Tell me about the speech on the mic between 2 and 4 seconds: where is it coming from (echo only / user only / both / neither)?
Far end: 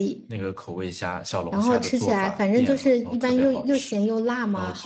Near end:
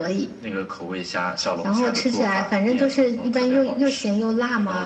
echo only